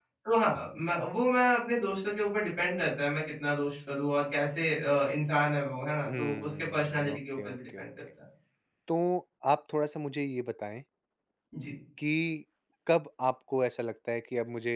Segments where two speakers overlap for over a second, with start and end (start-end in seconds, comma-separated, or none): 6.0-7.8